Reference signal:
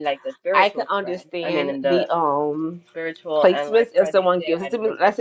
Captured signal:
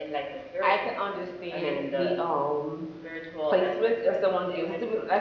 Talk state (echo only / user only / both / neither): echo only